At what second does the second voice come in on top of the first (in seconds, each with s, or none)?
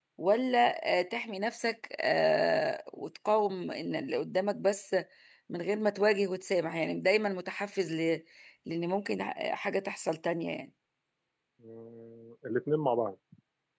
none